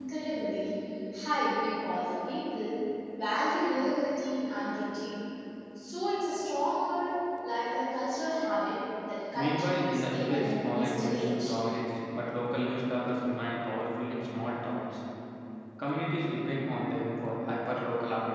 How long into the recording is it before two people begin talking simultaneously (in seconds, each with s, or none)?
9.3 s